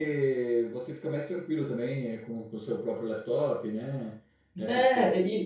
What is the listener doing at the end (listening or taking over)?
taking over